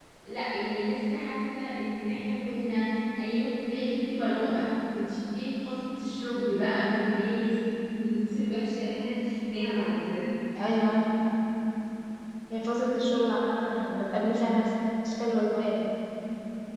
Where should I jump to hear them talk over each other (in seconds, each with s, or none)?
none